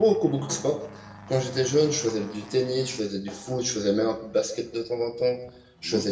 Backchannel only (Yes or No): Yes